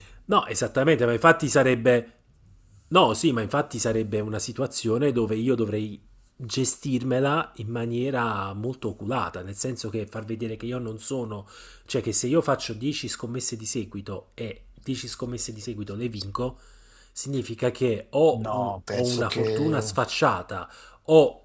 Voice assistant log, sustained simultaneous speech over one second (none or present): present